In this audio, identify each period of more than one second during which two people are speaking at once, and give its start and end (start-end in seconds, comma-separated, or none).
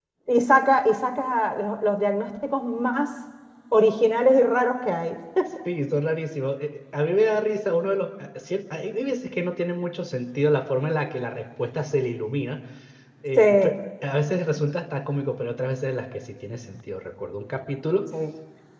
none